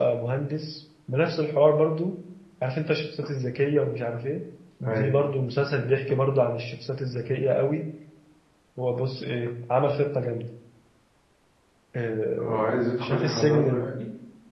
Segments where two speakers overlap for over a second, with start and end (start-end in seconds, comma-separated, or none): 12.4-13.9